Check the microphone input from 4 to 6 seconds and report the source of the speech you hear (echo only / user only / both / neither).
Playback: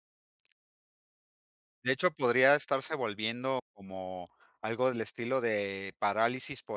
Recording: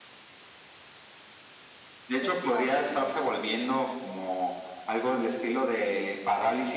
echo only